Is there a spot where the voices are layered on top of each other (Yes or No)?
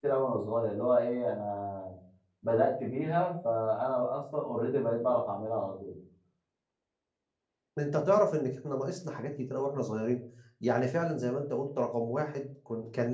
No